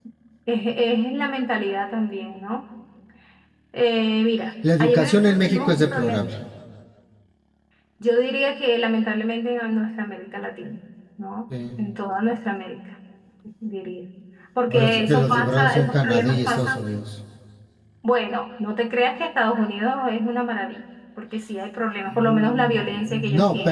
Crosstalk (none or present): present